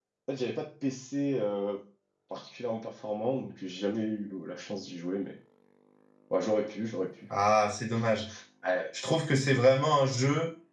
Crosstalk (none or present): none